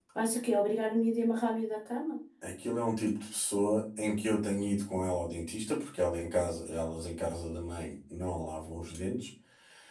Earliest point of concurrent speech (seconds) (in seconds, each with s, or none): none